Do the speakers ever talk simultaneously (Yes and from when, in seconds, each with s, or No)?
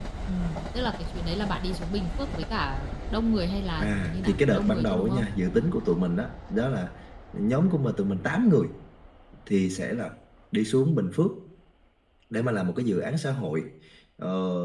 Yes, from 3.8 s